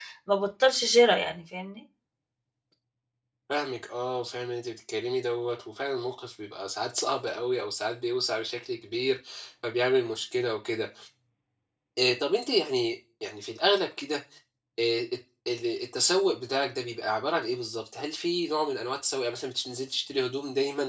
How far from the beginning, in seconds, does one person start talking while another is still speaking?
none

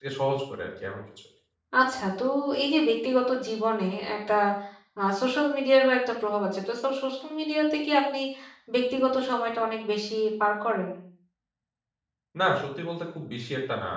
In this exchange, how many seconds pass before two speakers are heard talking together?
none

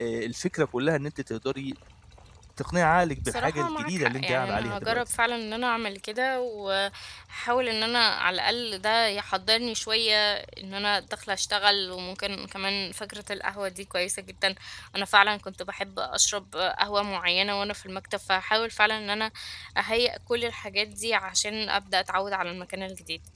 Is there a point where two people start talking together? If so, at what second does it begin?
3.2 s

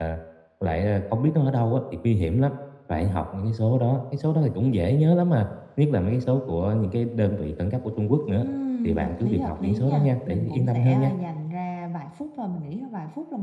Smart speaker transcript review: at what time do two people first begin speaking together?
8.8 s

